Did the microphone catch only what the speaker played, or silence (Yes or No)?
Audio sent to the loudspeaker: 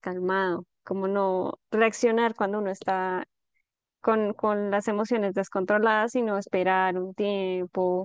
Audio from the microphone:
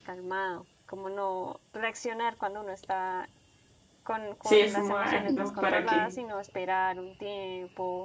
No